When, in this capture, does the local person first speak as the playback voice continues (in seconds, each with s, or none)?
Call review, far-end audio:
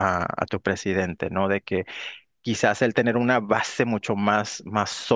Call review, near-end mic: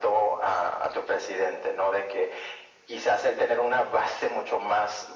none